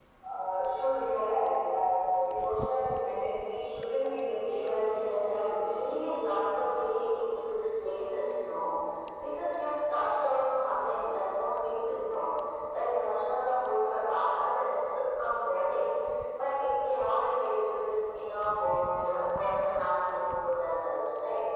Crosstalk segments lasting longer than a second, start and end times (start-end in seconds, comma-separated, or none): 4.5-5.9